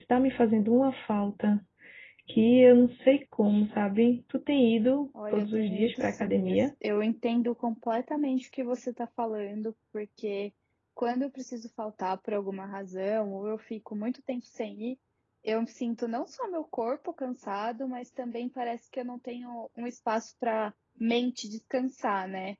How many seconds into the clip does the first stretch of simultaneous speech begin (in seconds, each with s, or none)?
5.1 s